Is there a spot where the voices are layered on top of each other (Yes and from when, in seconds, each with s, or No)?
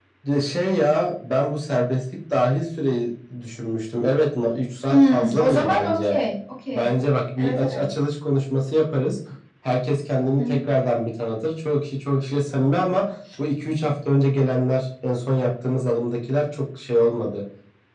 Yes, from 4.9 s